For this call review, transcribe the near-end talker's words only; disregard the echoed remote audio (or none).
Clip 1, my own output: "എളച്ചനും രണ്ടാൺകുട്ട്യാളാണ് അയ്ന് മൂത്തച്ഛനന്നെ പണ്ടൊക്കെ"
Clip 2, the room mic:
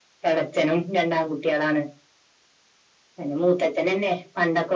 none